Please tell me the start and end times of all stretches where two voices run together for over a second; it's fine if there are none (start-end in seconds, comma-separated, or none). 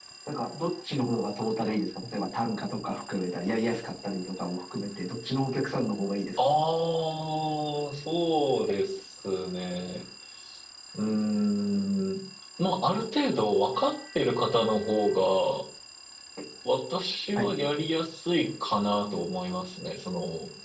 none